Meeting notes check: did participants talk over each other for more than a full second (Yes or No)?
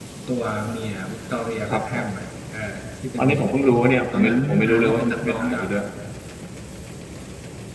Yes